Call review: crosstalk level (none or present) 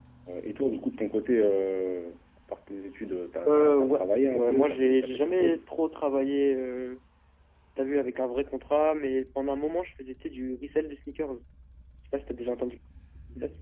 present